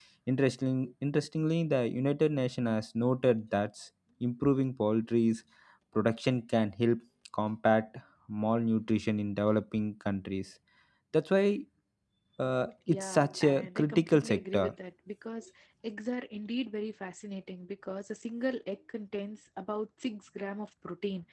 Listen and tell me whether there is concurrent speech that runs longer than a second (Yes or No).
Yes